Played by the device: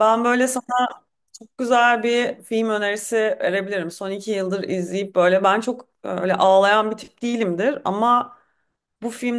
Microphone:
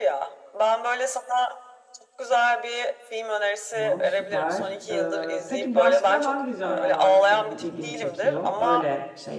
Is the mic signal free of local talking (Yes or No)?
No